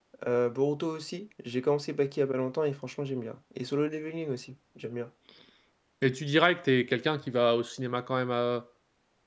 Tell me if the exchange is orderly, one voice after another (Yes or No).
Yes